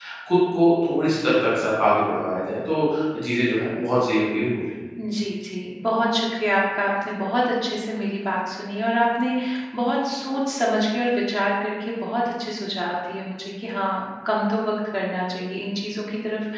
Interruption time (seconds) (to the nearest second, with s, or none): none